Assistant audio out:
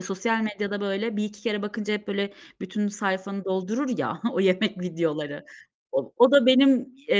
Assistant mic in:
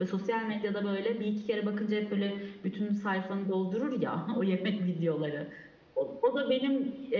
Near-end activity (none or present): none